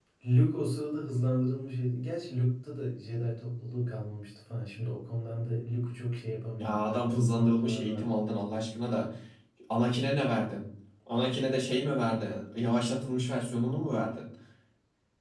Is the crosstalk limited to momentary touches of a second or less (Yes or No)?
No